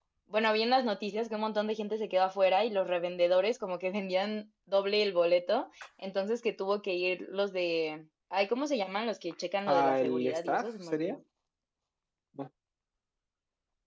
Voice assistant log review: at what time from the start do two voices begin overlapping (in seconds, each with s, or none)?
9.7 s